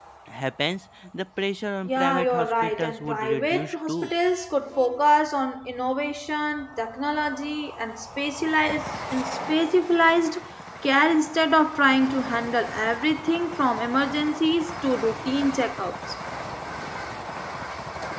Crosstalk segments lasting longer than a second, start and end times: 1.9-4.1

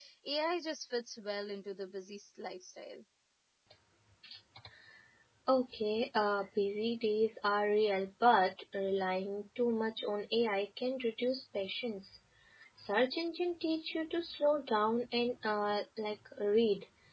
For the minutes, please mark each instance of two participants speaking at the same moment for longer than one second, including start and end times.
none

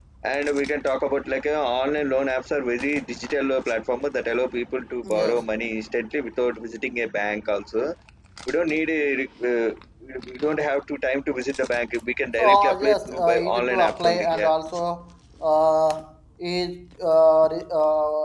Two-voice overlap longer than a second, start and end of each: 12.4-14.5

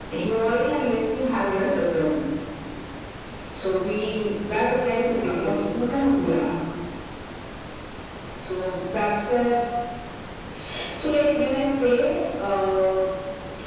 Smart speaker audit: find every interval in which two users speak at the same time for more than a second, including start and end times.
5.1-6.4

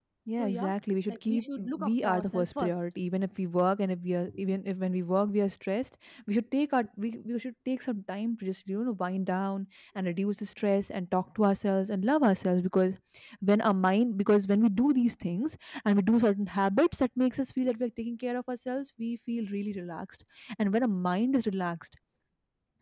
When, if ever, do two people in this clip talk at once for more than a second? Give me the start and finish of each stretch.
1.1-2.7

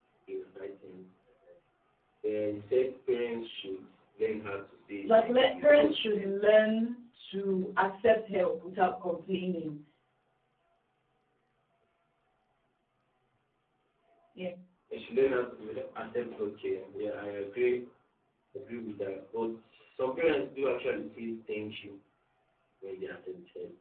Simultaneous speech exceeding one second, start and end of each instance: 5.0-6.3

